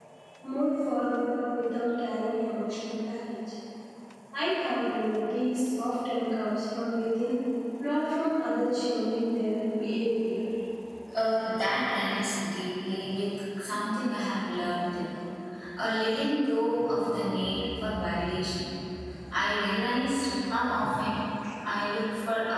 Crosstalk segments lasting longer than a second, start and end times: none

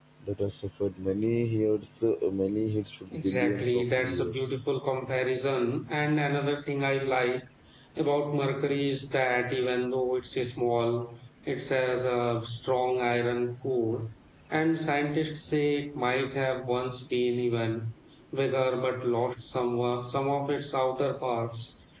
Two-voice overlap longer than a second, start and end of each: 3.1-4.4

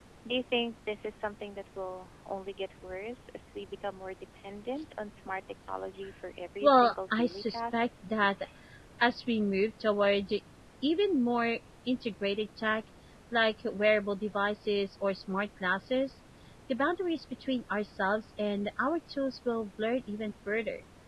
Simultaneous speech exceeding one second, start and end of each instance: 6.6-7.8

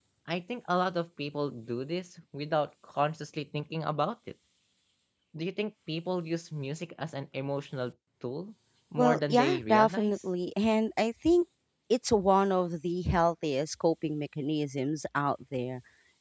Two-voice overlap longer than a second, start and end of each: 9.0-10.2

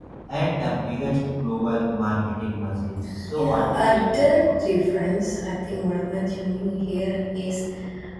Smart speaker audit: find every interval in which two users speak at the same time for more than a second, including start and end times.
3.4-4.6

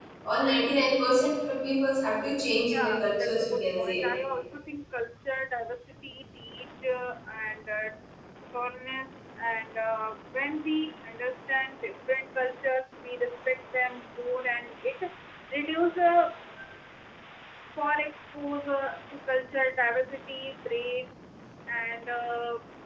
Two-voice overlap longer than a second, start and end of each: 2.7-4.0

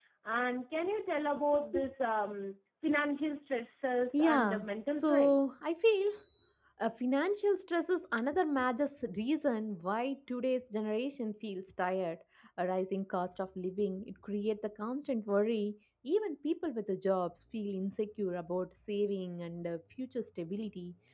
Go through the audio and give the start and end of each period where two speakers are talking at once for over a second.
4.1-5.3

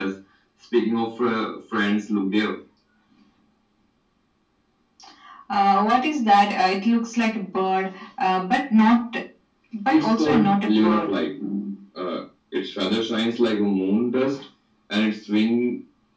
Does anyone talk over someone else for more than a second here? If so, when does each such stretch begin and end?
9.9-11.1

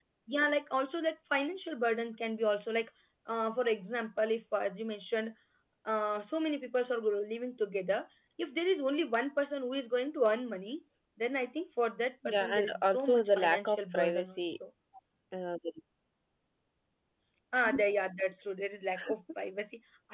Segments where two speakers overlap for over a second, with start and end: 12.2-14.6

